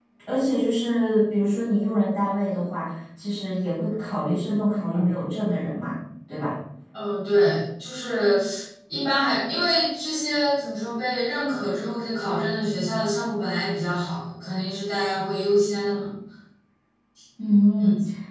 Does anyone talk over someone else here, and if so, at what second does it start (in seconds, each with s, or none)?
none